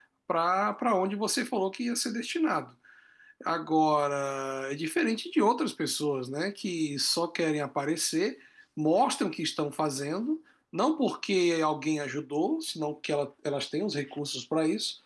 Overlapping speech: No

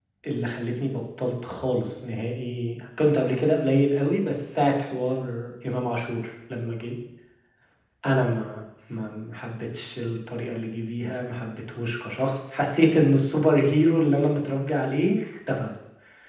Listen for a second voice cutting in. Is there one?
No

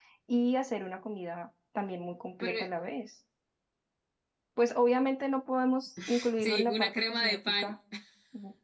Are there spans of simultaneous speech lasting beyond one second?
Yes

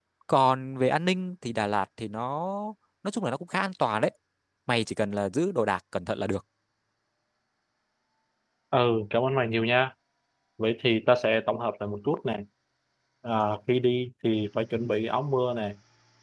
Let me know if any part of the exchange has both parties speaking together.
No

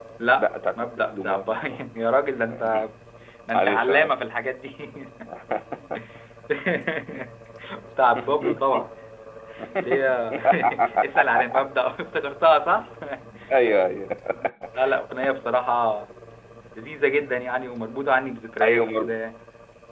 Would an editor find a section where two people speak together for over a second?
Yes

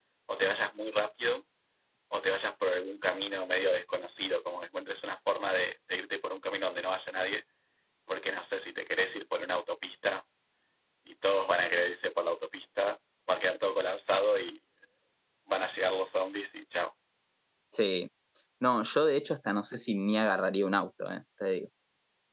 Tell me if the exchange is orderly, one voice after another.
Yes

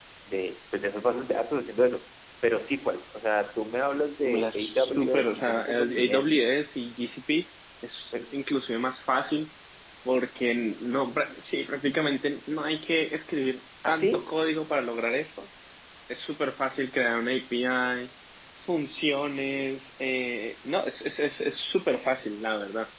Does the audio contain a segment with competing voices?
Yes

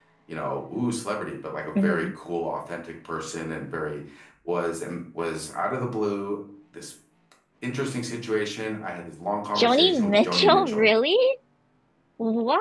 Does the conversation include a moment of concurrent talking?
Yes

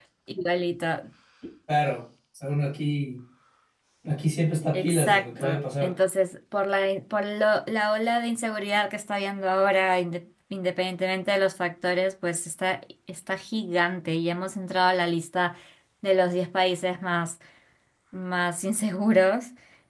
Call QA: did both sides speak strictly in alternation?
No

